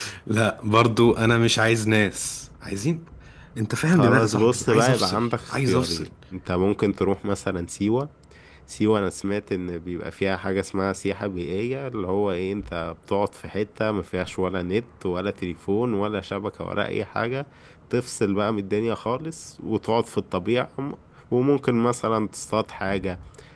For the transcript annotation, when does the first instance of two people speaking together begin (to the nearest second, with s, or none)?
4 s